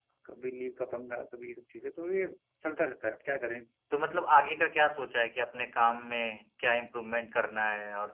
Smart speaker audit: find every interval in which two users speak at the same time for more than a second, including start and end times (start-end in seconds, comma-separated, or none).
none